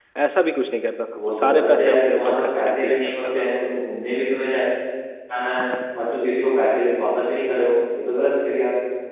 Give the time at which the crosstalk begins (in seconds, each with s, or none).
1.1 s